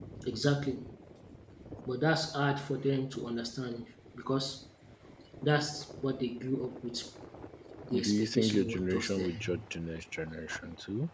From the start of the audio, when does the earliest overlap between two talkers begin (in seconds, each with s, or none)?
8.0 s